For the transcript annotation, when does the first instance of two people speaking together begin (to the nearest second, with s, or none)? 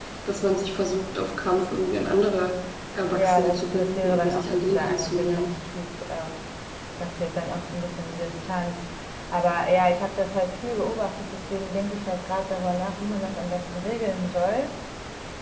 3 s